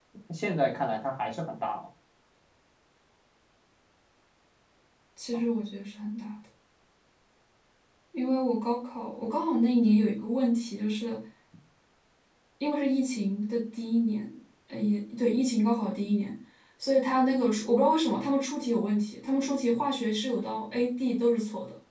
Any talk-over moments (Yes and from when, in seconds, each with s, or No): No